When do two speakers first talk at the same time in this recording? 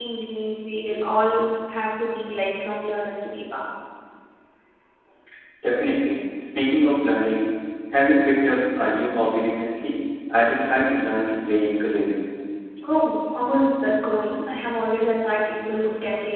none

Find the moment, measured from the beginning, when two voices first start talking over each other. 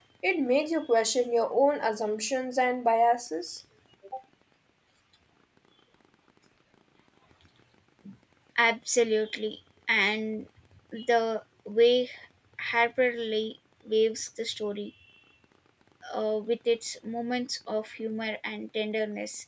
none

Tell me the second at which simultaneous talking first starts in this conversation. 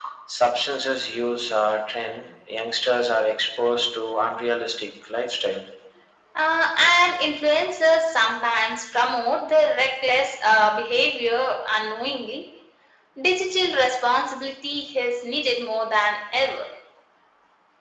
none

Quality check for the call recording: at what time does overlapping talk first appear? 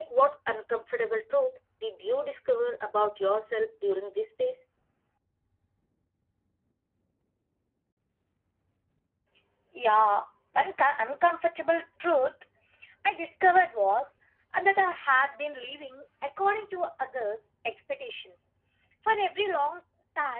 none

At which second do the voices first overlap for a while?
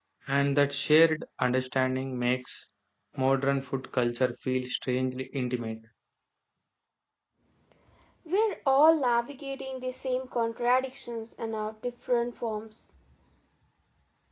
none

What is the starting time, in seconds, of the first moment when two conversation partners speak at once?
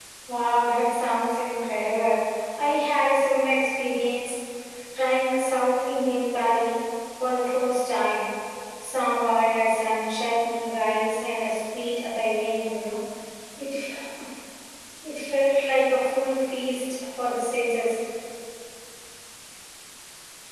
none

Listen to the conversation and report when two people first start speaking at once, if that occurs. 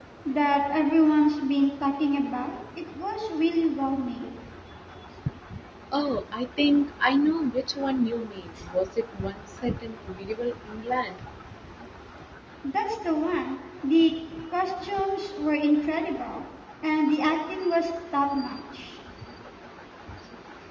none

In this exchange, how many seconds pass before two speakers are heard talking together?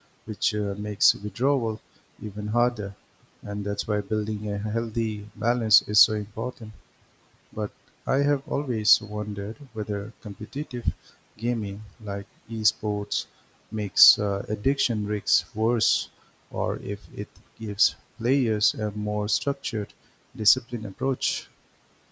none

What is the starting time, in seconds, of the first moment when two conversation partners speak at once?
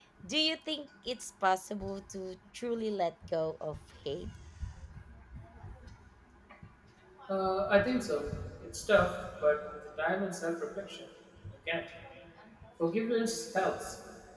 none

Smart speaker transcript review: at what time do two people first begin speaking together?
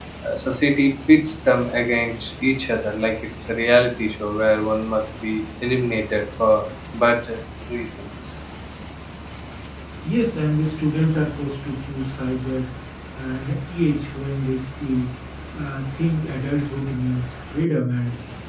none

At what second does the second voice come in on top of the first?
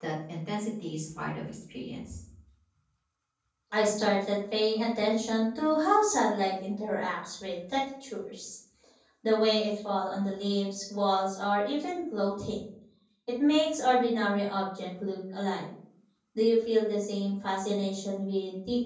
none

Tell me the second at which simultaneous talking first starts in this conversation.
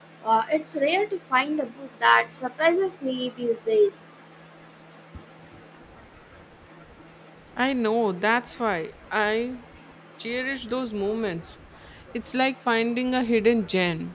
none

